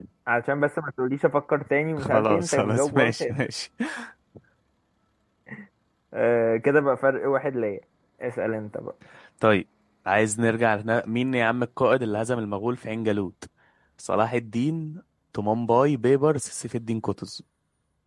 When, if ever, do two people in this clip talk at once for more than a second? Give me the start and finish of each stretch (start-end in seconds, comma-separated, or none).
2.0-3.3